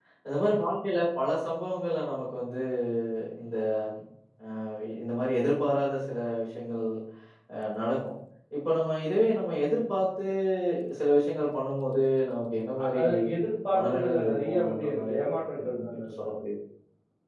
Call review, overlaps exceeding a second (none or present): present